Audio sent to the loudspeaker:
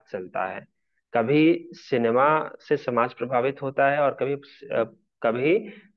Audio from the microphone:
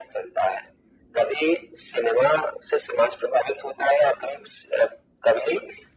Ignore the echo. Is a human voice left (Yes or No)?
No